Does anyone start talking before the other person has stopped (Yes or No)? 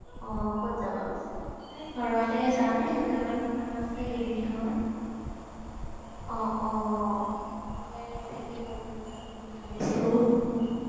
No